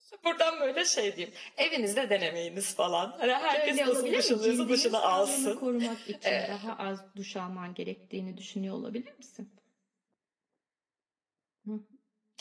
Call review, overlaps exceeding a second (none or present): present